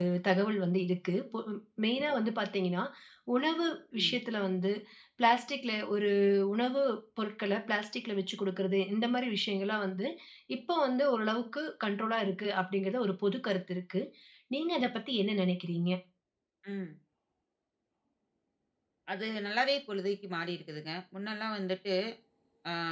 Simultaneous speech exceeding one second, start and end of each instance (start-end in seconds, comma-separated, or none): none